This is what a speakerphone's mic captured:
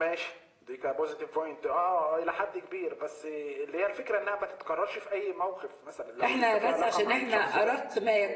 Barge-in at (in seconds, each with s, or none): 6.2 s